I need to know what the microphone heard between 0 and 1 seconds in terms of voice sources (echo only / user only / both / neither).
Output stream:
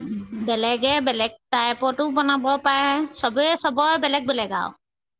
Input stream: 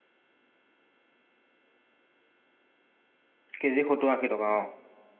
neither